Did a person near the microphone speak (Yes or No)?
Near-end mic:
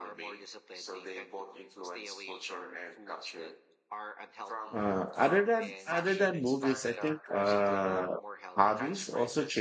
Yes